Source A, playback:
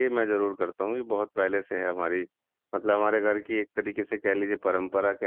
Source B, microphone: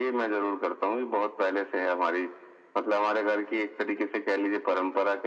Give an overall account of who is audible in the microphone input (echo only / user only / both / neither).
echo only